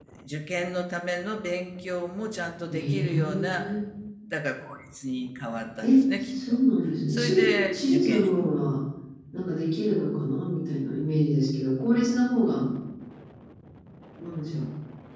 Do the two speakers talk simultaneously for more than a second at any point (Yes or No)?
Yes